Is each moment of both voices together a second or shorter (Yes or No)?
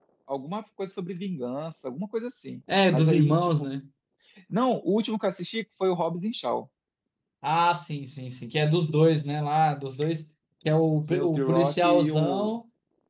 No